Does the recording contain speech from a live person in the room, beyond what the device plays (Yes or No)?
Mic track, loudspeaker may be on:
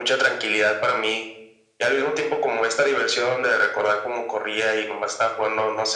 No